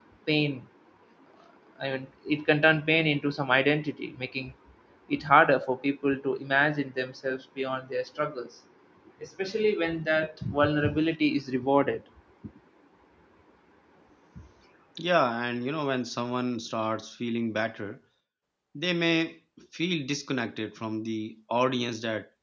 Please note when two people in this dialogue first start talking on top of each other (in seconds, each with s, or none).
none